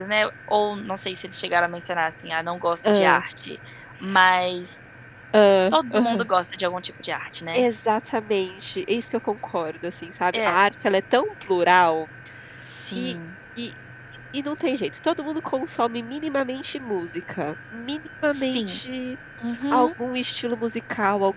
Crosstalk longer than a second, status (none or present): none